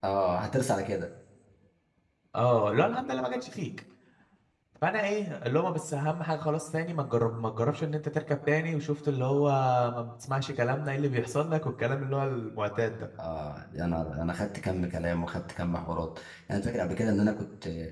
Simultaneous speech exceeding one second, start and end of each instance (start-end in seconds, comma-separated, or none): none